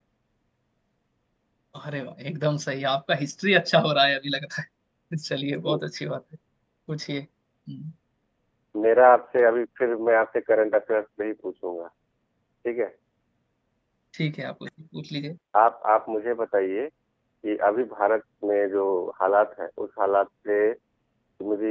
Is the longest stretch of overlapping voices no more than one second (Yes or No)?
Yes